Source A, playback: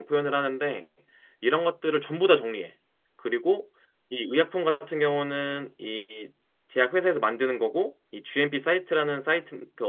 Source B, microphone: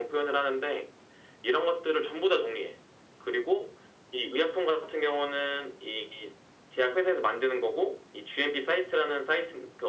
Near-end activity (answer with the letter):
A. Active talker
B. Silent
B